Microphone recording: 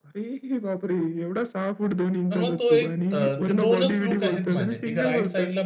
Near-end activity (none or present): present